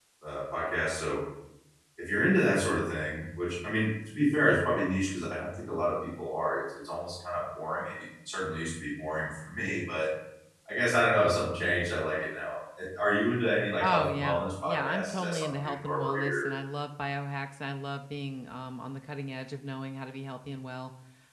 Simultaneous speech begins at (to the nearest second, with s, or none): 14 s